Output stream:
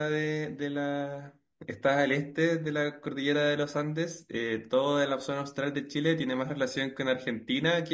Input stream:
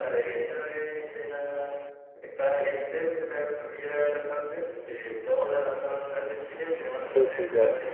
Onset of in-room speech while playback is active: 7.0 s

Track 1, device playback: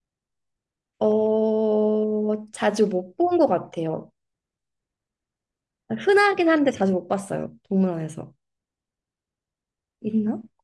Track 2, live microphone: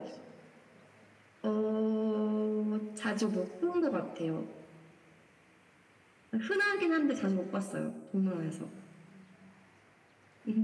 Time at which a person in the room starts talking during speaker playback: none

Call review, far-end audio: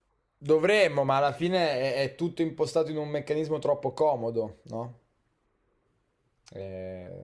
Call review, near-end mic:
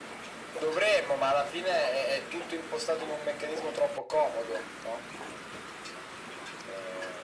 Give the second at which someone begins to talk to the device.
none

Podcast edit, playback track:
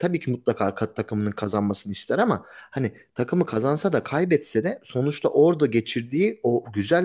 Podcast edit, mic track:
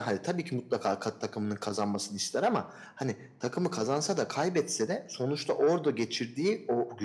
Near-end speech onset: none

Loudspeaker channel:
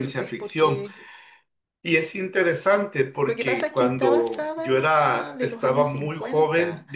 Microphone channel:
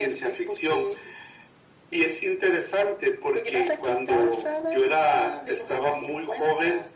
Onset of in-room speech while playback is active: none

